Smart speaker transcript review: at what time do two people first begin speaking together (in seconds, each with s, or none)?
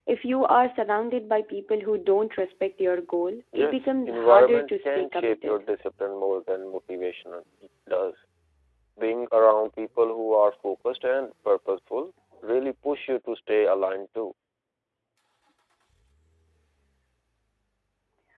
3.5 s